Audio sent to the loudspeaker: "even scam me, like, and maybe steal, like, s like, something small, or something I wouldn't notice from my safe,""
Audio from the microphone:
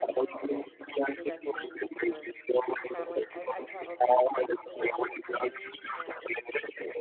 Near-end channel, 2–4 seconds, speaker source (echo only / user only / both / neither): both